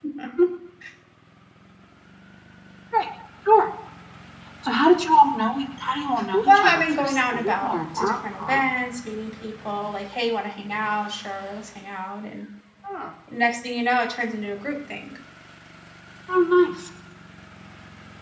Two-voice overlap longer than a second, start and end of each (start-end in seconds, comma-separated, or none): 6.5-8.6